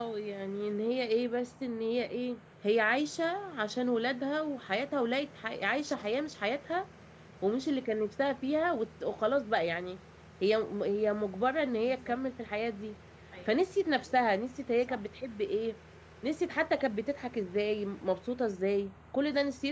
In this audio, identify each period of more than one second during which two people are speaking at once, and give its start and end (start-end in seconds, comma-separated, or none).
none